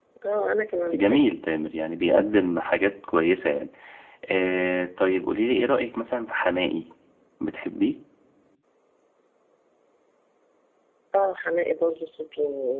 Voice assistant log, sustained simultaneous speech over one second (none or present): none